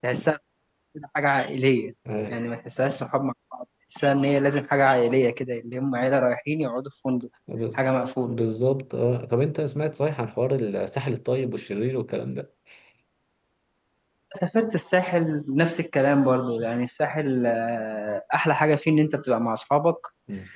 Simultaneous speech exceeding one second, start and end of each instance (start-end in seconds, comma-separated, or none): none